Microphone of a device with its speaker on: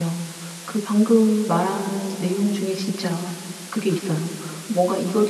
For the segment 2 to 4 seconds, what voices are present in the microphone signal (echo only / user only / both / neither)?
user only